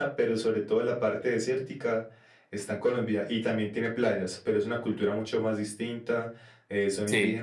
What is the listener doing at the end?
listening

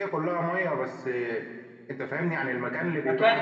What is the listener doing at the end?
taking over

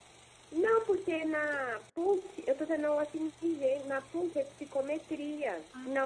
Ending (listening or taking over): listening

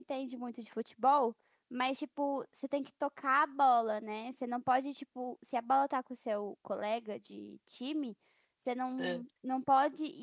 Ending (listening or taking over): listening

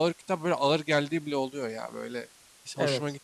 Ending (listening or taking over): listening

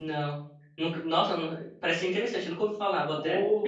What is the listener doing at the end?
taking over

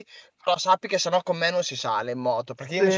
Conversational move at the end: listening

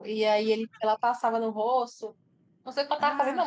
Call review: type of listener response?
listening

